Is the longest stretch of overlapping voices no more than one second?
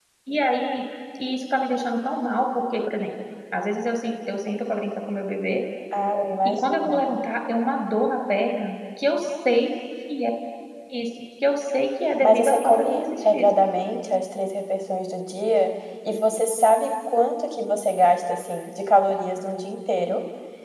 No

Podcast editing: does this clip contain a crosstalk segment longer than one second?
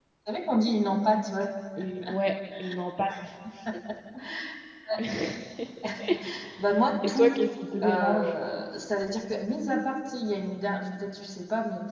No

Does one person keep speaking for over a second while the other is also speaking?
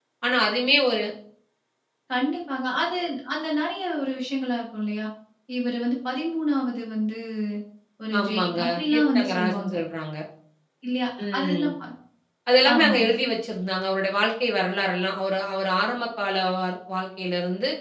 Yes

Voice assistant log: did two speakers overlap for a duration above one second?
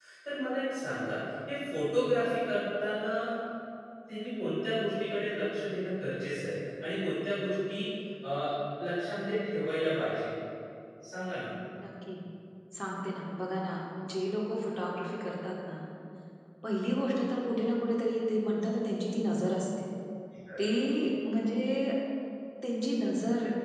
No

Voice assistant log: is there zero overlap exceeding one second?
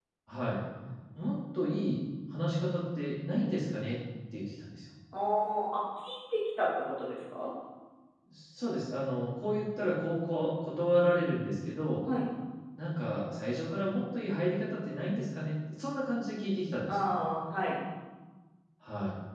Yes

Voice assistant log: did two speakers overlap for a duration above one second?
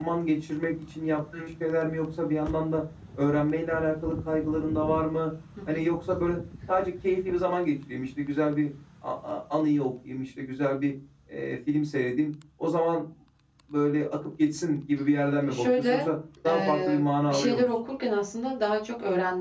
Yes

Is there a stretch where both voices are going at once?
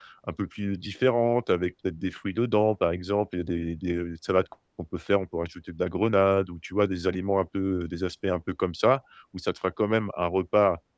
No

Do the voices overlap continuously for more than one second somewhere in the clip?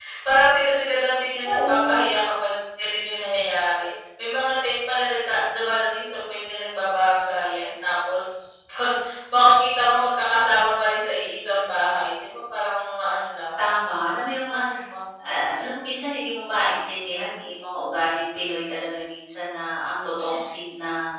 No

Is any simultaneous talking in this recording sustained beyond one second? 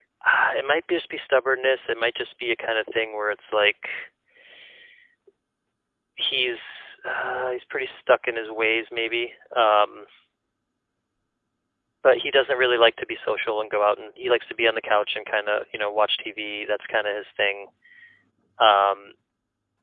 No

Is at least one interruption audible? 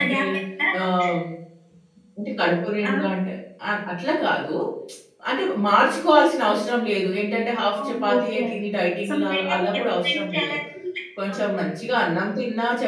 Yes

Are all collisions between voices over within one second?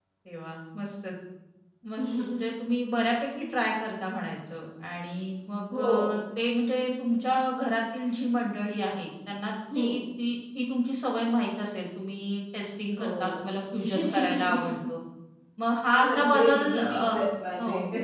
No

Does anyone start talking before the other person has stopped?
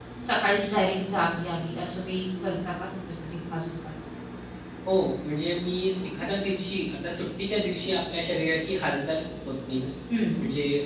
No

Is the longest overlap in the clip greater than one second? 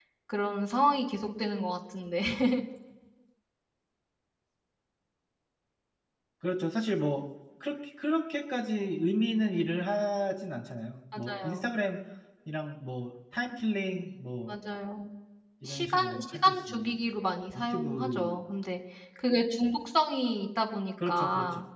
Yes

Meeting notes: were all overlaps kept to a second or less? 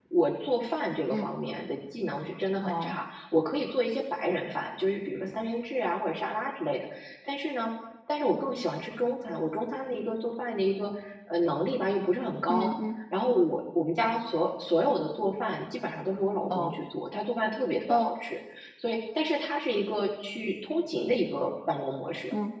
Yes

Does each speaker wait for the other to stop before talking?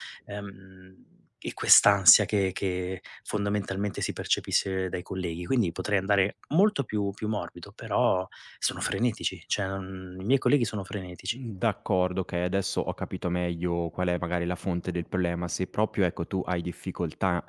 Yes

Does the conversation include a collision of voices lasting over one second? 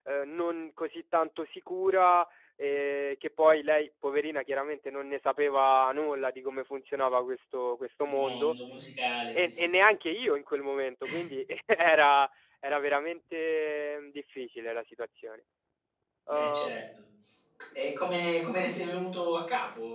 No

